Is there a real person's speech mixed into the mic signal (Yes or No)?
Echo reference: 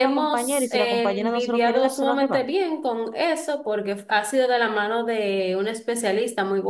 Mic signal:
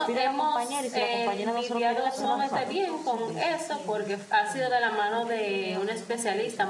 Yes